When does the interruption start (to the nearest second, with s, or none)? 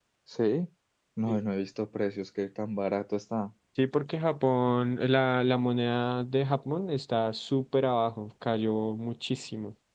none